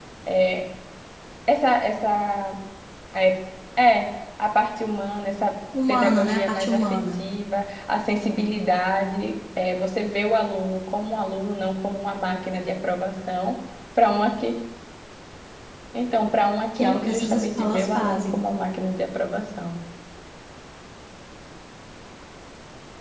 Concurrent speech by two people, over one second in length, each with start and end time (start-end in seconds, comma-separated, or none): 5.9-7.2, 16.8-18.4